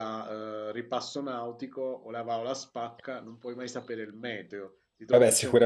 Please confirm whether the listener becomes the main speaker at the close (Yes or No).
Yes